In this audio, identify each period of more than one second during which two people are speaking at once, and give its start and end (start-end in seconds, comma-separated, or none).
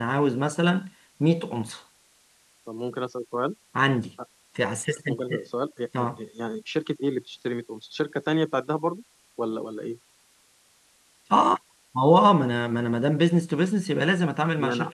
none